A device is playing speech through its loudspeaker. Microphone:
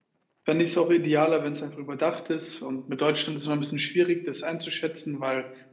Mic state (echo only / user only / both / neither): user only